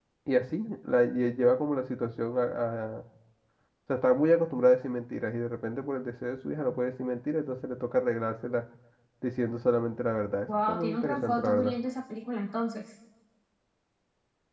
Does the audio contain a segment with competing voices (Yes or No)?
Yes